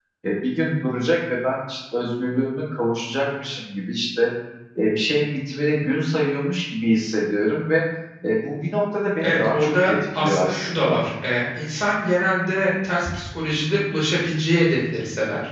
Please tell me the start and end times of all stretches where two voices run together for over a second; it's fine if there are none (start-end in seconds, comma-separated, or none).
9.2-11.0